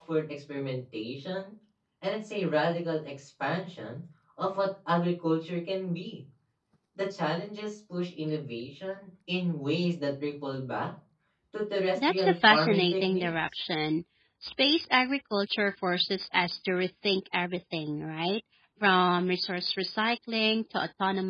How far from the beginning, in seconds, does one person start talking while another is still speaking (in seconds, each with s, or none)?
11.9 s